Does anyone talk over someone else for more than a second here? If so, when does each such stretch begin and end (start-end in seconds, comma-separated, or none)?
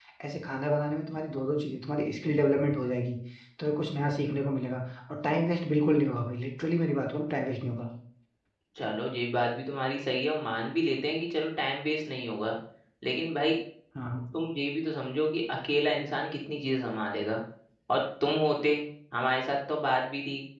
none